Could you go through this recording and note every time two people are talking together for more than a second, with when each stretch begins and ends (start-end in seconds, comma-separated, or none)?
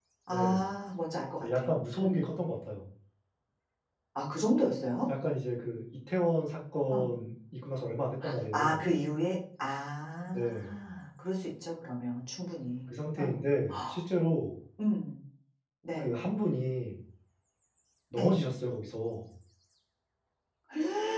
none